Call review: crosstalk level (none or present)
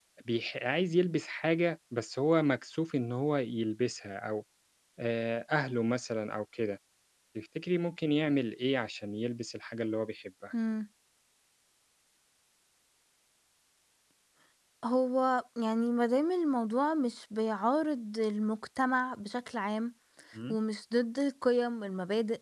none